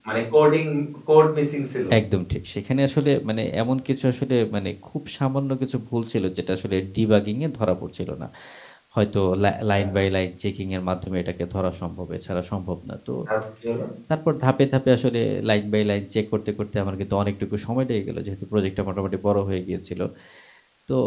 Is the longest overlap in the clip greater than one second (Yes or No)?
No